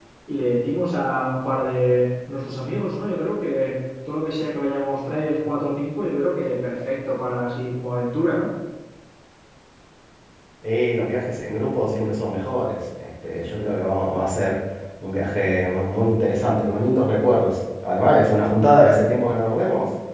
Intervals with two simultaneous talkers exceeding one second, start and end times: none

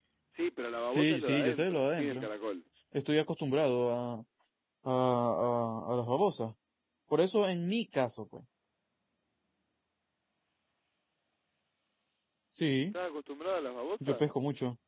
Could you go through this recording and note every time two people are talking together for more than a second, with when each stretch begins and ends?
0.9-2.3

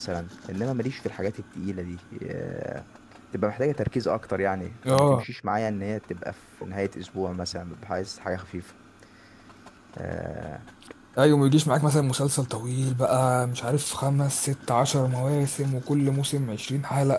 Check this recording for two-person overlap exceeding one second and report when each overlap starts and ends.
none

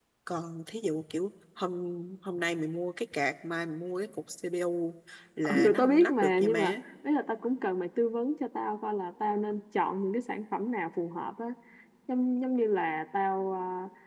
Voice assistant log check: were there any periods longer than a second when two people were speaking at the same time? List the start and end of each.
5.5-6.7

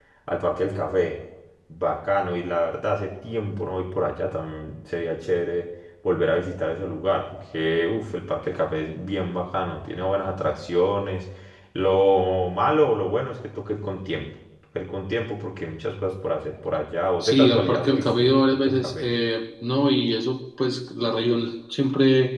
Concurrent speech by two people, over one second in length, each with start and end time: 17.2-19.0

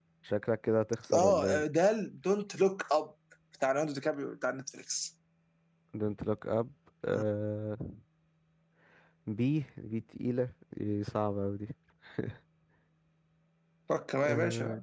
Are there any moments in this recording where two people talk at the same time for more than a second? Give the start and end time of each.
none

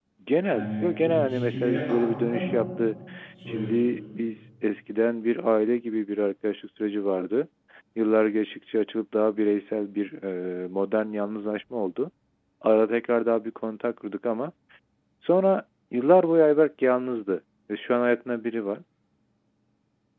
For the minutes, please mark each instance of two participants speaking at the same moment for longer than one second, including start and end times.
0.5-2.6

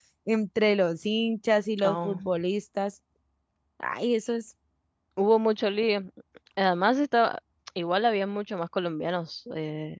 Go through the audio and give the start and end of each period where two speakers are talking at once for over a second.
none

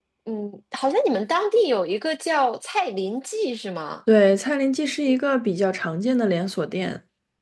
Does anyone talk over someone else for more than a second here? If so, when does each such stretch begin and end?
none

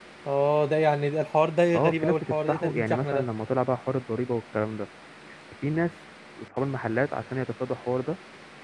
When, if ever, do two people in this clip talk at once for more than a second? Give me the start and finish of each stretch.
1.7-3.2

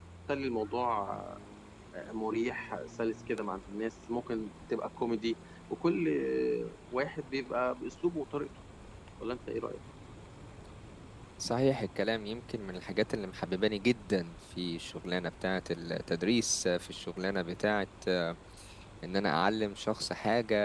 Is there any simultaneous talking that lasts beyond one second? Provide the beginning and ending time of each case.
none

